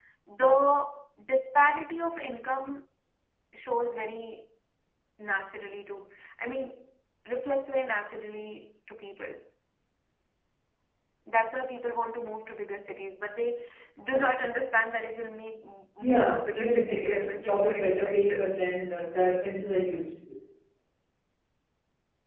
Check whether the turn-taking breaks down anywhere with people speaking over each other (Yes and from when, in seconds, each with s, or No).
Yes, from 16.0 s